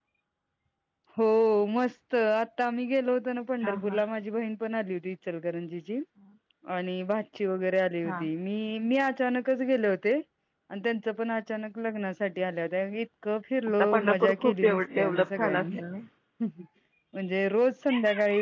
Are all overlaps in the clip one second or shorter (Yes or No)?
No